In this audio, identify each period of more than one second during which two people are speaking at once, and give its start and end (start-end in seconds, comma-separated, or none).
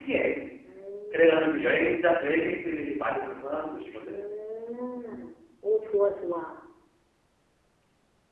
none